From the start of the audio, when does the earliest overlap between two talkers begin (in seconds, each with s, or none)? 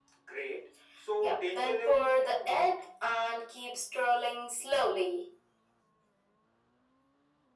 1.2 s